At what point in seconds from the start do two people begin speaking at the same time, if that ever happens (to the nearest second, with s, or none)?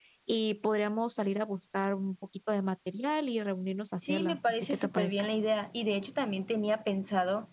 4 s